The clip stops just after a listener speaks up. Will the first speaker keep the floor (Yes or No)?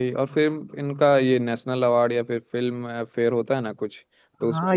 No